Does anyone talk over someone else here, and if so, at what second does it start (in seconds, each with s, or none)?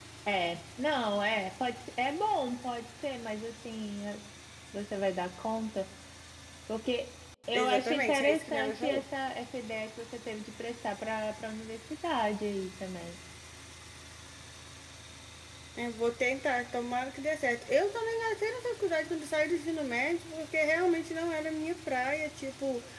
7.5 s